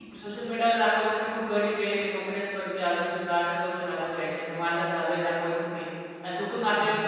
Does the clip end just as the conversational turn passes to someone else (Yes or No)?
No